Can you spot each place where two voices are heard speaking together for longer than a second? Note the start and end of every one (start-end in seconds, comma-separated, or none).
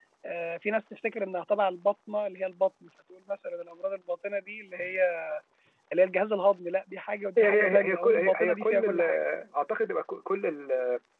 7.4-9.2